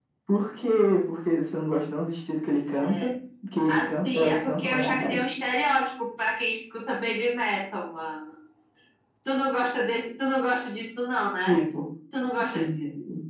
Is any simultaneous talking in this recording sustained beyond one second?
Yes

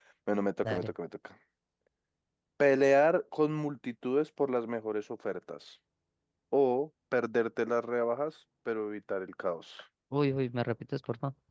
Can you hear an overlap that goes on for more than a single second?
No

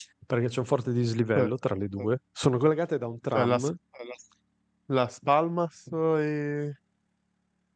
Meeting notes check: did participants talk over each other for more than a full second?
No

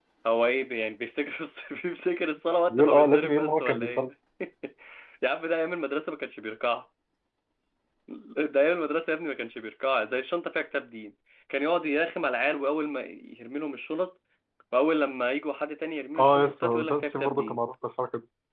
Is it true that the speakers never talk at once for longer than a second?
No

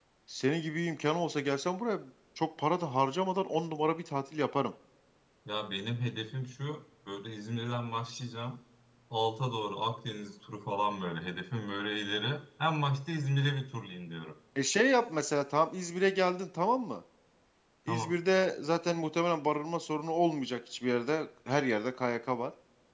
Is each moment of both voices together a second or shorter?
Yes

